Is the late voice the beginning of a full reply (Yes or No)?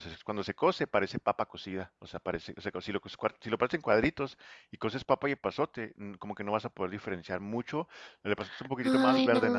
Yes